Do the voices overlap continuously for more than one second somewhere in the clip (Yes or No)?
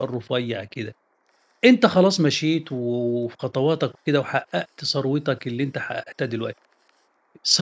No